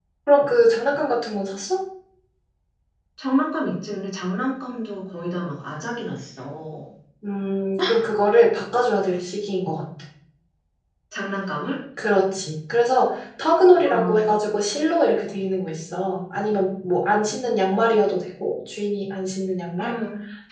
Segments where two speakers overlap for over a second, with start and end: none

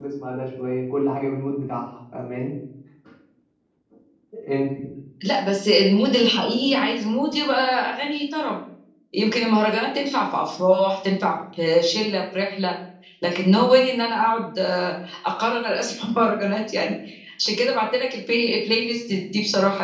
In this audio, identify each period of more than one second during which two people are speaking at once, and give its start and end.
none

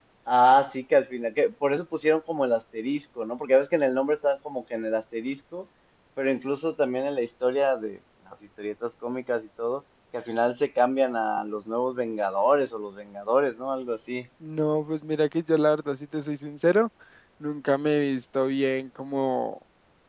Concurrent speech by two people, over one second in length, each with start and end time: none

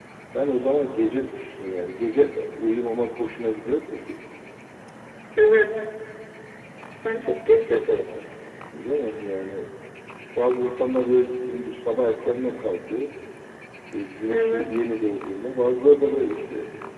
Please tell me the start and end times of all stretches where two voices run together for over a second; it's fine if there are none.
none

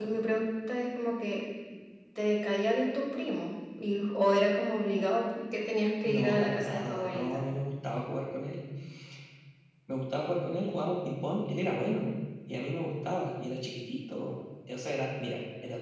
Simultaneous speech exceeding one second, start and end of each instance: 6.0-7.4

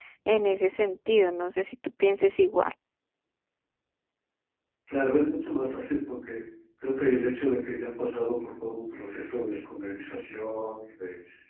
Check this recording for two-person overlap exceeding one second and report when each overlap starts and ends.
none

